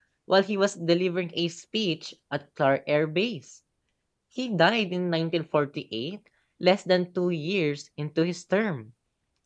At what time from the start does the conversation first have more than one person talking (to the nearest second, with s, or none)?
none